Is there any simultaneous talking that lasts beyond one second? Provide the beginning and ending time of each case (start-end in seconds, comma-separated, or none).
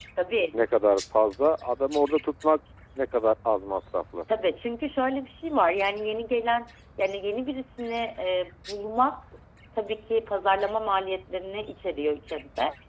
none